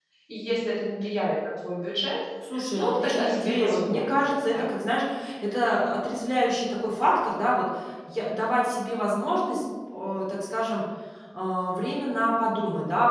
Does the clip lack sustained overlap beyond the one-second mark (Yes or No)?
No